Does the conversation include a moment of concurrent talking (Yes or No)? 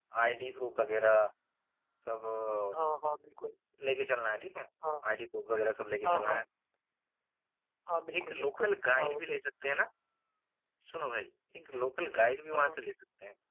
Yes